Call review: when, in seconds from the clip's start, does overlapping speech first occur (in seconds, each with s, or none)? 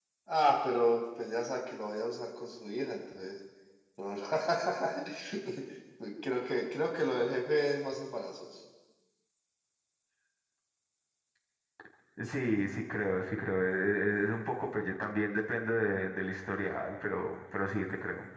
none